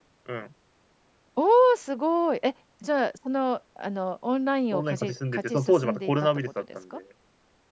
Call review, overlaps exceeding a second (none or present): present